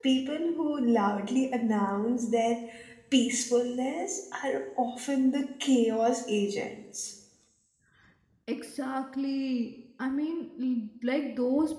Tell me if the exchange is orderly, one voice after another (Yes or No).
Yes